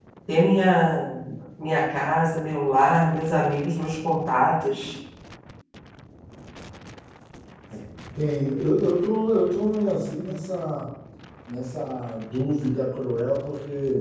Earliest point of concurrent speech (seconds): none

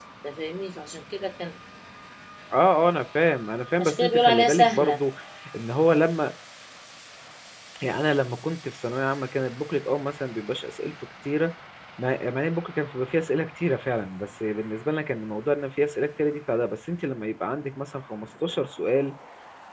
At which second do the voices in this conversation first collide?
4 s

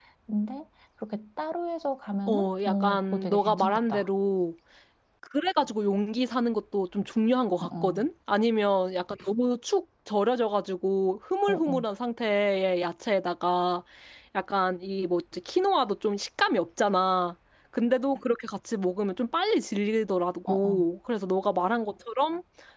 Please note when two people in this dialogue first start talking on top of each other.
2 s

